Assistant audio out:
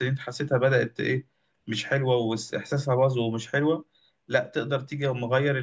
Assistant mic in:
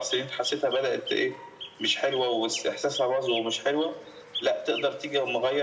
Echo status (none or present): present